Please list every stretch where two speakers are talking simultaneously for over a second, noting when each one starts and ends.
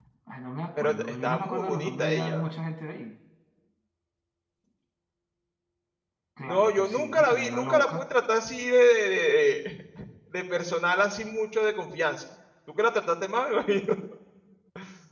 0.8-2.5, 6.5-8.0

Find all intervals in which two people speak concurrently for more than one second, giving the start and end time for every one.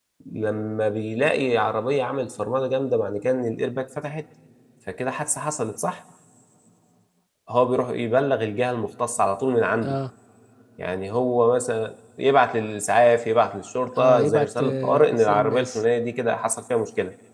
14.0-15.8

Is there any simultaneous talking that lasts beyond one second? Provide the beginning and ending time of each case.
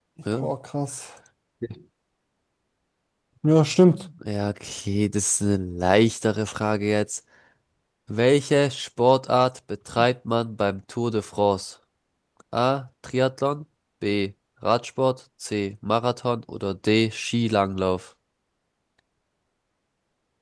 none

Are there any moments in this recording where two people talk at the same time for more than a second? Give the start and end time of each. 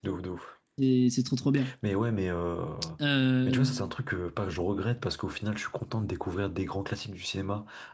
none

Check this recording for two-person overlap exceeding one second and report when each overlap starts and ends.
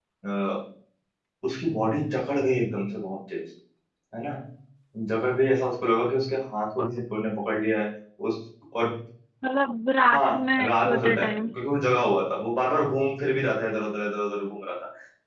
10.1-11.5

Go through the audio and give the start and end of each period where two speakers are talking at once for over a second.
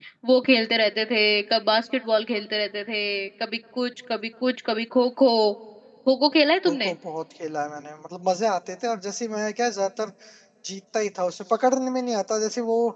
none

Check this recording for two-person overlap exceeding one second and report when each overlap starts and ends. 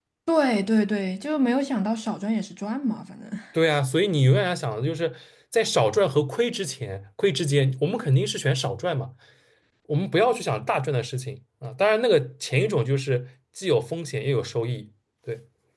none

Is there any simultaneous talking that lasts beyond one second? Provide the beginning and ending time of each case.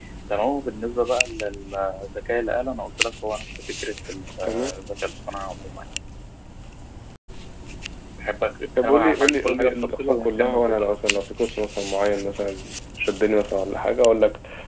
8.8-11.2

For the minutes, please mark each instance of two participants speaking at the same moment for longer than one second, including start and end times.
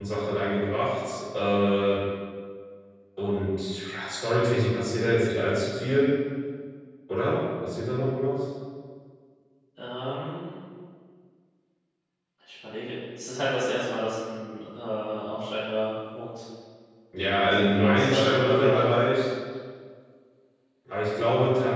17.4-18.8

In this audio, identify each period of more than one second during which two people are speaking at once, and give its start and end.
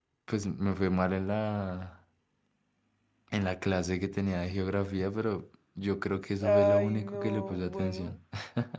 6.4-8.1

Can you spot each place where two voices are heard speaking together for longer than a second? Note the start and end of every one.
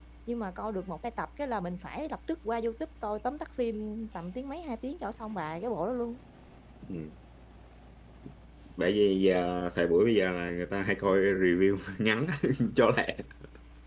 none

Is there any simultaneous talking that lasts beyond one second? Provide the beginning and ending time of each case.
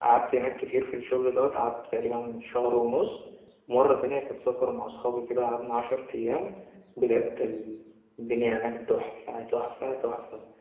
none

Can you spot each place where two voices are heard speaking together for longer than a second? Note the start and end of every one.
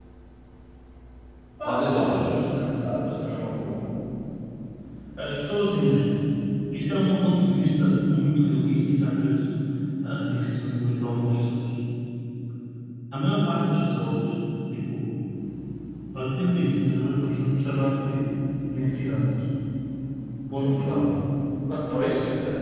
none

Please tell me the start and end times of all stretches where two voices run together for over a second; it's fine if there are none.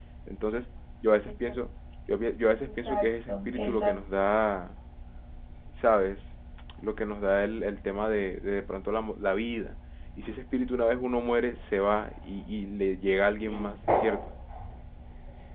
2.7-3.9

